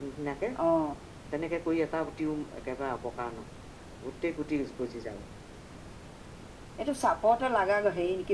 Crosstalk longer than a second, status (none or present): none